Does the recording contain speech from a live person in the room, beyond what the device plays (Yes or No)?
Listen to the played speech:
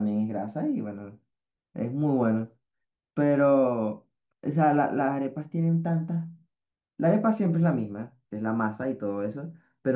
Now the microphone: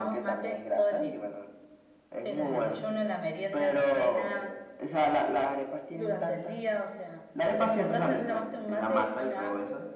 Yes